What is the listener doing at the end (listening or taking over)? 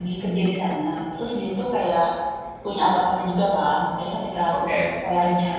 listening